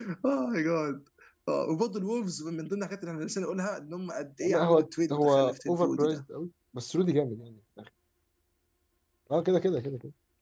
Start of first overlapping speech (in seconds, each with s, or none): 4.4 s